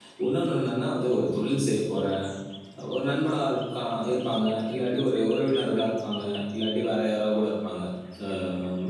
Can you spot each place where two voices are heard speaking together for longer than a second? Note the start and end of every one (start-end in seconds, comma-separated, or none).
none